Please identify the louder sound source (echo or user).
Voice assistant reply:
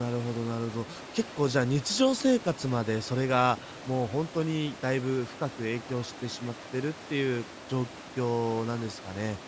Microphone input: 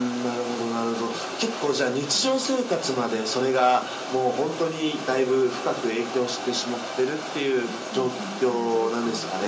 echo